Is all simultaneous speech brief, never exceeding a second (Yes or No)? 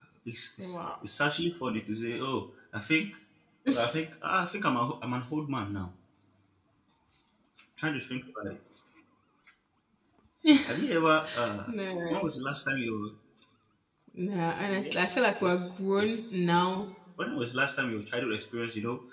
No